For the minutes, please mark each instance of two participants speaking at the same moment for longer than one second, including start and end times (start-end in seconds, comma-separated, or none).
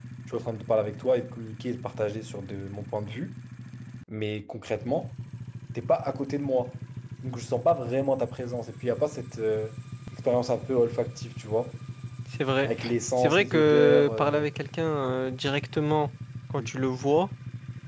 13.2-14.5